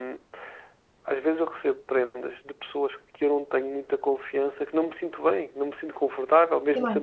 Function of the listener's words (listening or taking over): taking over